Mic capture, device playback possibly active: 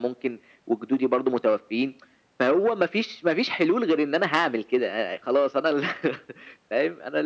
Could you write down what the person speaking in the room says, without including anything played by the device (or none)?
none